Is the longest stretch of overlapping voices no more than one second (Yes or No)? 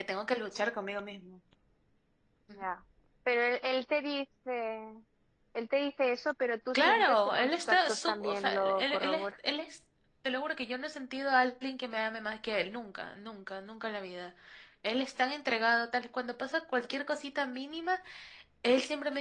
No